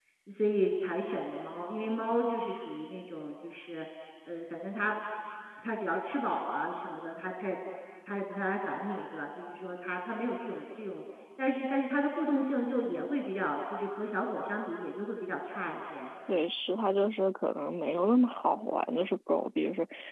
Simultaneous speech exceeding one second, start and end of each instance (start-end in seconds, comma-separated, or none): none